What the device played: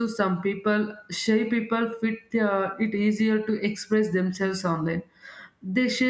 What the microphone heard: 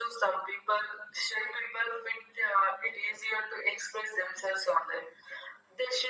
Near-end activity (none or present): none